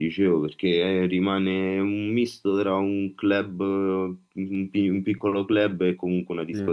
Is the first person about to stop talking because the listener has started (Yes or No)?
Yes